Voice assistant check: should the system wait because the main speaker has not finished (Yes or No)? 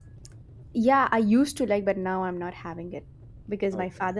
Yes